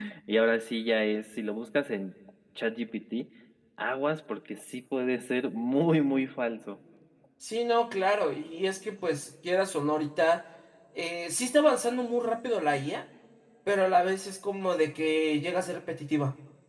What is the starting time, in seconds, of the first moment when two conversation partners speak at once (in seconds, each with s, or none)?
none